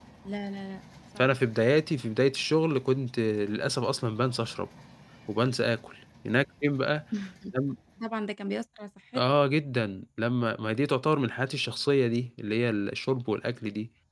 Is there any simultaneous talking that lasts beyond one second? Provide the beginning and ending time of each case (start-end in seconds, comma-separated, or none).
none